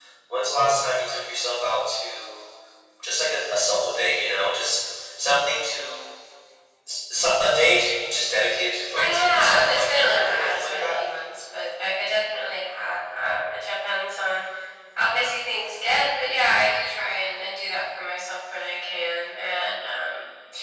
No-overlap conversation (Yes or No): No